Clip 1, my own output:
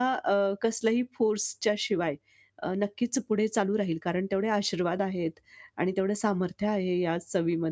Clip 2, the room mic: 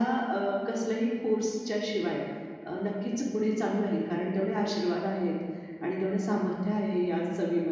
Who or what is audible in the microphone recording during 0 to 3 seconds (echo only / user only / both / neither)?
echo only